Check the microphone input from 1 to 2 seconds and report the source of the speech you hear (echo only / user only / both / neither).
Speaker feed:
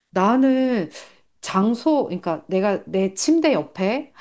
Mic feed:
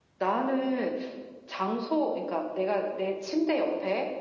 echo only